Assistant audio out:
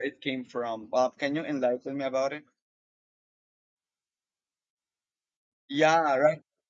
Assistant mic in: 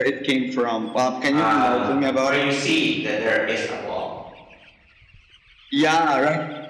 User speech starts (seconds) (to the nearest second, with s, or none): 1 s